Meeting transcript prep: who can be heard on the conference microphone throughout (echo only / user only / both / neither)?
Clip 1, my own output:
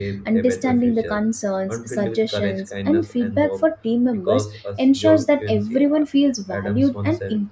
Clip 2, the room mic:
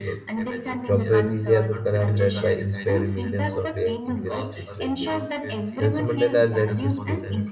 both